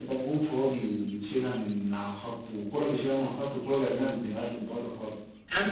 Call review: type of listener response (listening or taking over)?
taking over